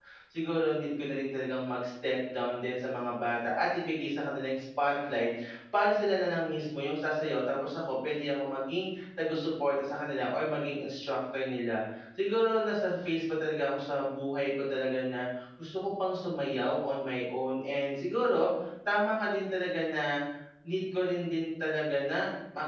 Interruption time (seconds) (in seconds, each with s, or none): none